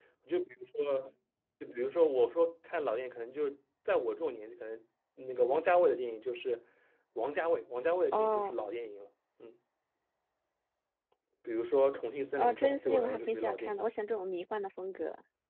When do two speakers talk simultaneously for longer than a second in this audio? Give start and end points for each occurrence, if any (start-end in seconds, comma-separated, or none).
12.4-13.8